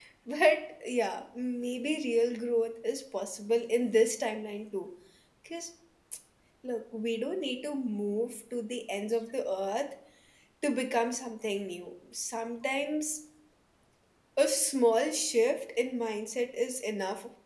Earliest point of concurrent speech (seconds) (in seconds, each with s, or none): none